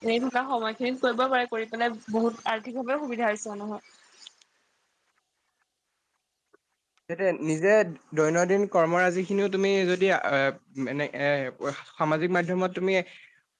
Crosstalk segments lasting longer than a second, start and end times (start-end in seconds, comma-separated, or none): none